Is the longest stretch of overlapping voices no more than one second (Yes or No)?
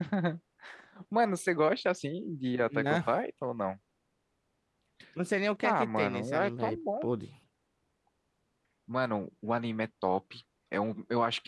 No